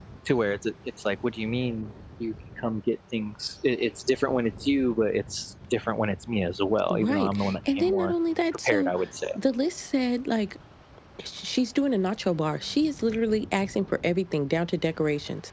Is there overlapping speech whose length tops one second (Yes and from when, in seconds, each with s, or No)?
Yes, from 6.9 s